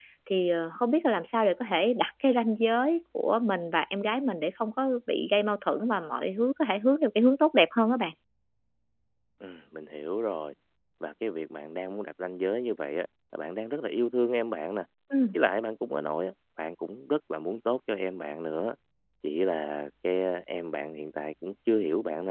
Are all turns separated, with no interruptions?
Yes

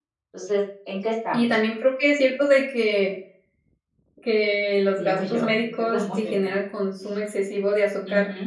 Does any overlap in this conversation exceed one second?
Yes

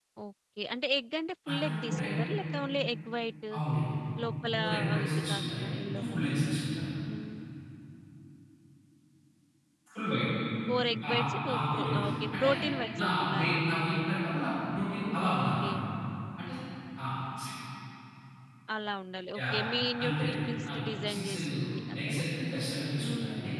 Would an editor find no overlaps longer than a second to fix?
No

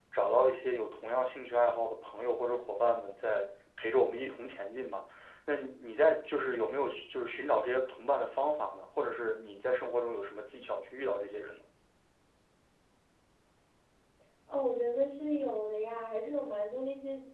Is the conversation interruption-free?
Yes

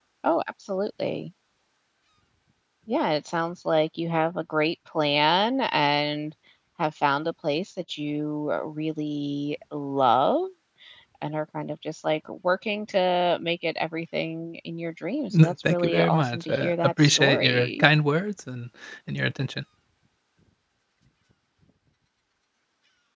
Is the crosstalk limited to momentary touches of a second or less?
No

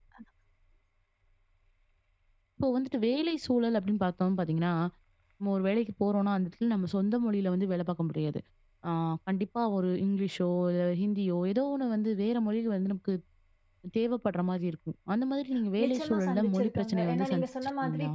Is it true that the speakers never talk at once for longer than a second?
No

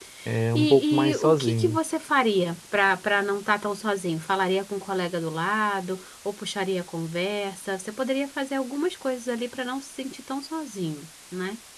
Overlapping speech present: Yes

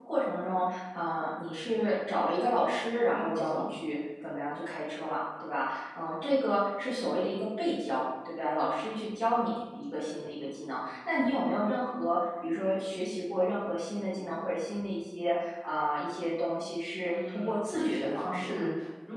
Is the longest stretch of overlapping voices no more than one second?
No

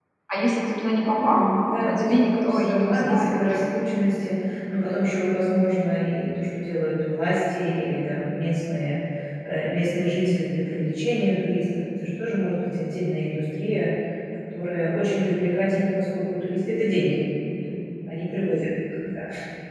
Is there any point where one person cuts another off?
Yes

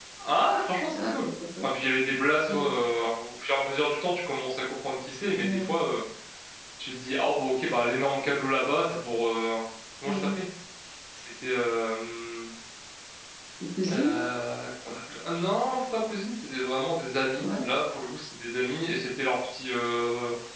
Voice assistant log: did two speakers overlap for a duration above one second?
No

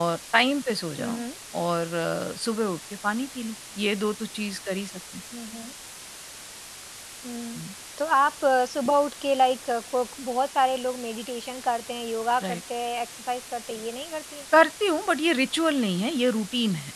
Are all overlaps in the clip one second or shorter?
Yes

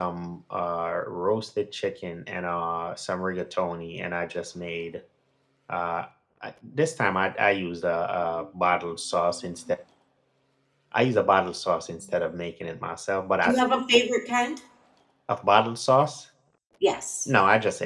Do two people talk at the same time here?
No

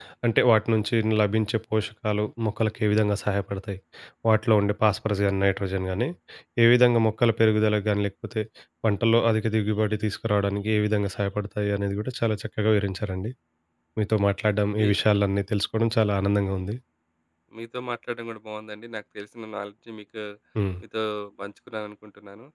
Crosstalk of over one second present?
No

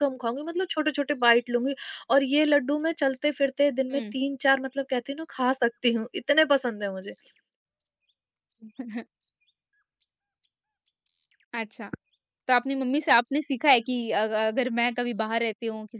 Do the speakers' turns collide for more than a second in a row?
No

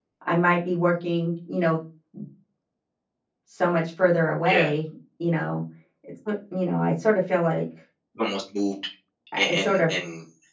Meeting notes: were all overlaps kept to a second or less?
Yes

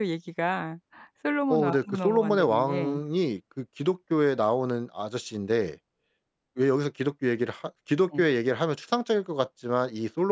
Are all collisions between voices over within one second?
No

